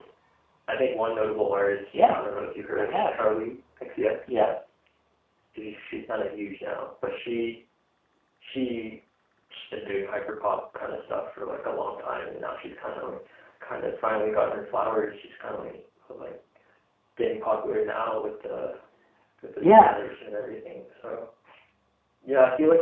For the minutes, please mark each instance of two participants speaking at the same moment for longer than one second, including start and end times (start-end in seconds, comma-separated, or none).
none